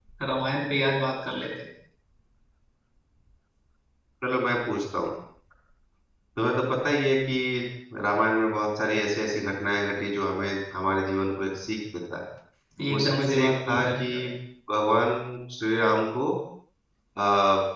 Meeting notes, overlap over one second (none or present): present